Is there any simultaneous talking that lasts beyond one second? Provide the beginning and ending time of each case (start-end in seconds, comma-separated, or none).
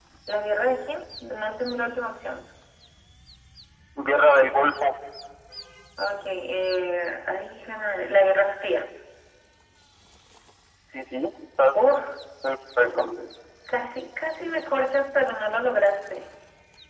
none